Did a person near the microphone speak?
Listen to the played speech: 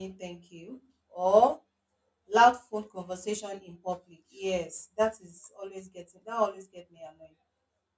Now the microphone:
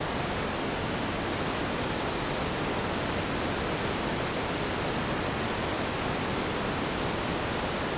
No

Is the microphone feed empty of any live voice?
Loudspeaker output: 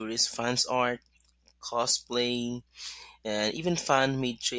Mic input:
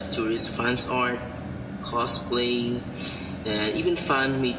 Yes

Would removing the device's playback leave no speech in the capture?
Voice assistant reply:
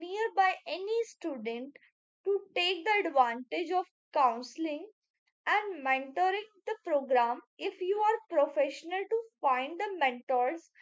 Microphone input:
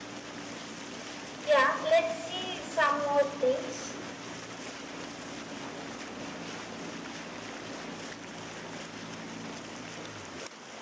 No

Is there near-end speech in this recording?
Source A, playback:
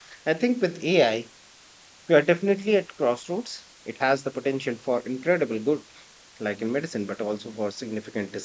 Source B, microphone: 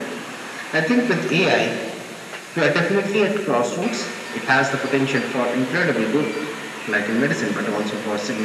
No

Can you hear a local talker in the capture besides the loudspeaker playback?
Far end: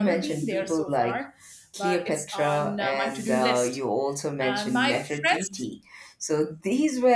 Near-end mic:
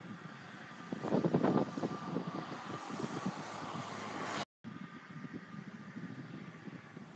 No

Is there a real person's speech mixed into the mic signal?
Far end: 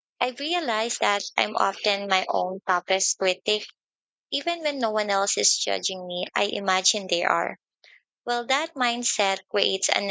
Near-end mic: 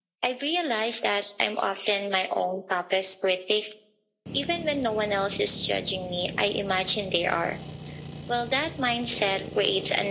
No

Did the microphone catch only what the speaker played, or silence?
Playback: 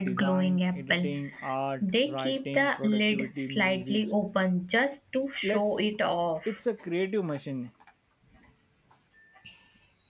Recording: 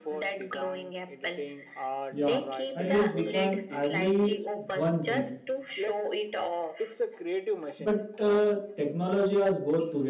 No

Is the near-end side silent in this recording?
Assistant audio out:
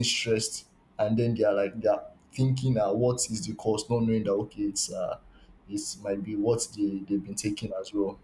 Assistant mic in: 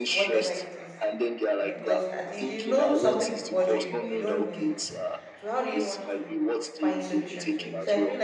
No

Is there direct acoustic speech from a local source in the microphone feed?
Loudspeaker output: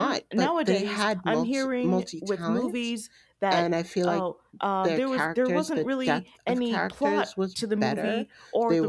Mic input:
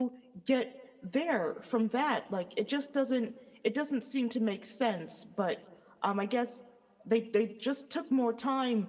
Yes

